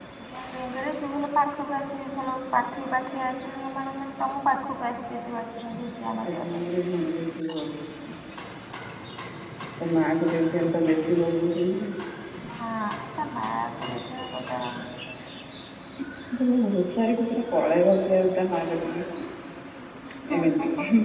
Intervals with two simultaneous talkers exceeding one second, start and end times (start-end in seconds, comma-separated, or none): none